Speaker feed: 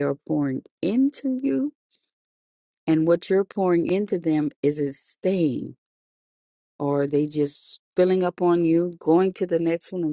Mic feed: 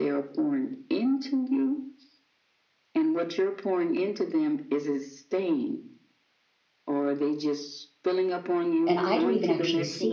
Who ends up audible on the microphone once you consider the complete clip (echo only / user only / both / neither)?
both